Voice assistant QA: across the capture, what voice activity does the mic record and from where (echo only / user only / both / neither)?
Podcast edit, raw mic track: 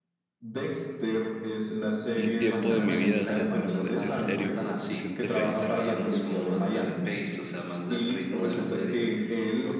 both